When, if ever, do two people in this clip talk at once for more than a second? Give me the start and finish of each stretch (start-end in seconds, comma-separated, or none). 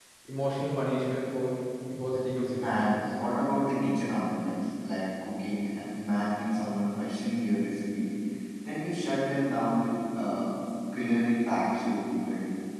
none